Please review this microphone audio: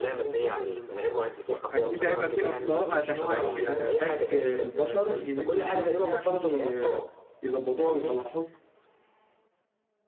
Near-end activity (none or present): present